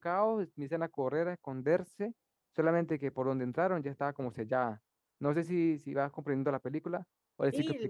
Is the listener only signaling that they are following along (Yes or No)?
No